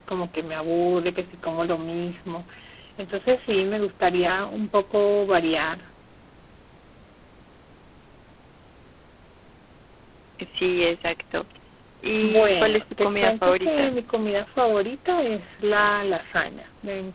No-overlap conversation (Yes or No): No